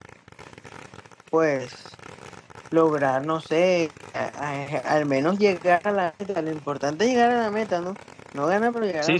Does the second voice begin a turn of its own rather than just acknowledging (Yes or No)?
Yes